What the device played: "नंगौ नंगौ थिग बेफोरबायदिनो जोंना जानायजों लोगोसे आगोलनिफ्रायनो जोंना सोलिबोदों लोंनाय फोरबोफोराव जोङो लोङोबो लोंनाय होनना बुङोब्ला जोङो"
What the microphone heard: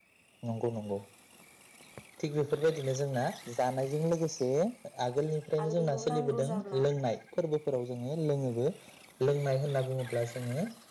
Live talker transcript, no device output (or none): आरो बेखौ नांगौ जाब्ला